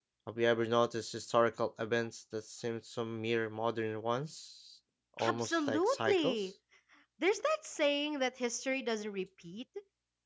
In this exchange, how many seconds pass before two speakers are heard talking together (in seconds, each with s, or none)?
5.2 s